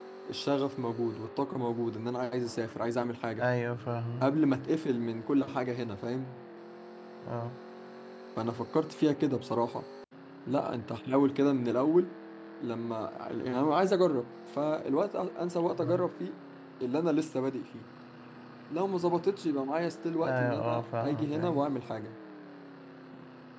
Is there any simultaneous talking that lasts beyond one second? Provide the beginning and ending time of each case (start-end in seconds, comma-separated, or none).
20.2-21.7